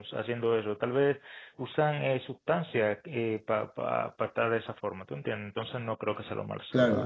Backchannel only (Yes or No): Yes